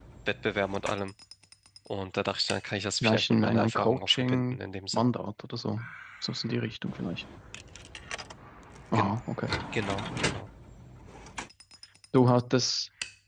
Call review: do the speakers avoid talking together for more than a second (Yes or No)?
No